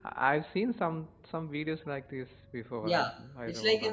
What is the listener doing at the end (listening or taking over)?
taking over